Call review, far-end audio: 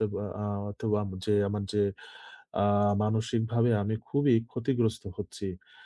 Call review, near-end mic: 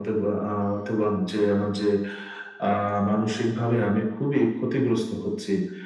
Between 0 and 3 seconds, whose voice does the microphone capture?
echo only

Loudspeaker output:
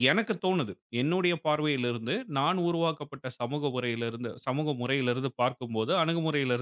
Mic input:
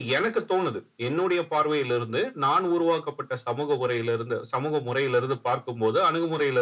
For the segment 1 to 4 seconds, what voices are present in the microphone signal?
echo only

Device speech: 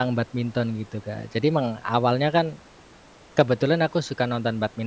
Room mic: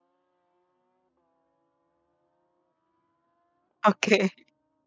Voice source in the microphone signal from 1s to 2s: neither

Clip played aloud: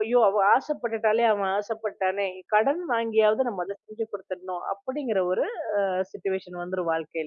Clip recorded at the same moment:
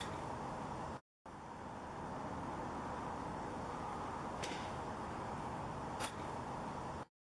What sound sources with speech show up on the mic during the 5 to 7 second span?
neither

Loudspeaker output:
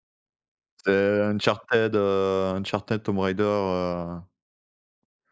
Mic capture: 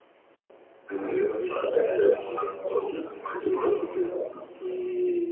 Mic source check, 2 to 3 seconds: both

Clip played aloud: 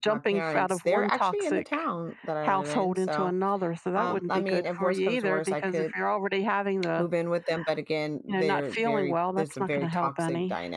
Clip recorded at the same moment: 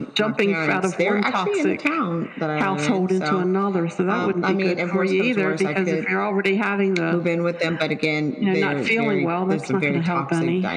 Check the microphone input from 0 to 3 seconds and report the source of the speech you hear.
echo only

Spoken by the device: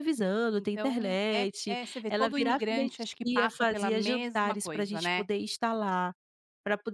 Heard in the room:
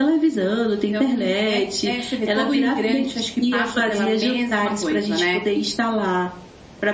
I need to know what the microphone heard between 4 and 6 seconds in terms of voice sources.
echo only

